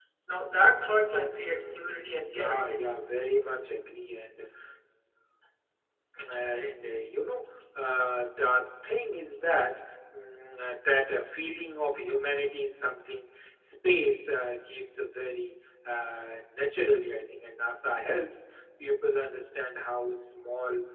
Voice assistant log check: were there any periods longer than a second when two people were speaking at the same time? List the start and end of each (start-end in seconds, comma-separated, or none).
1.5-2.9